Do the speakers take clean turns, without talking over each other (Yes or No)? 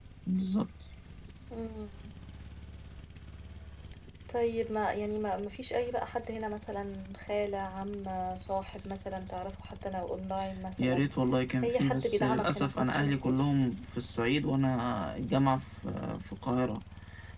No